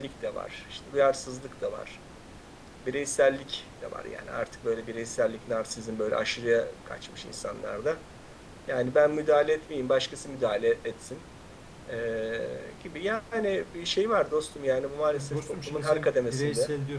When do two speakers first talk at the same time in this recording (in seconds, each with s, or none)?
15.1 s